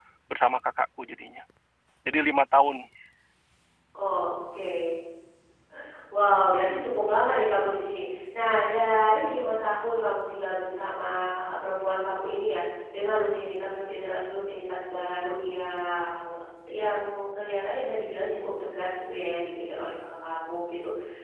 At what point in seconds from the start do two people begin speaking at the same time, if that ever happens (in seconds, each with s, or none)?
none